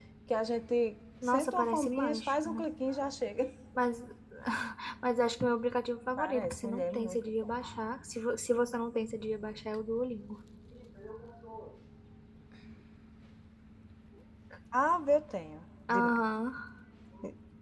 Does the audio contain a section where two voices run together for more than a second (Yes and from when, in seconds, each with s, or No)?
Yes, from 1.2 s